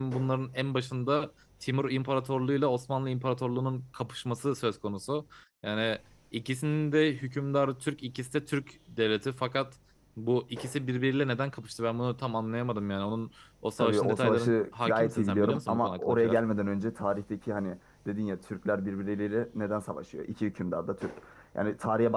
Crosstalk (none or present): present